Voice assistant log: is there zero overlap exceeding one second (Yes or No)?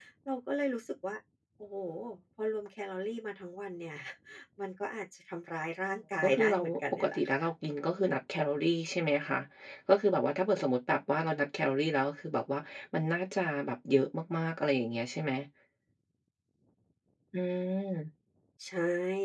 No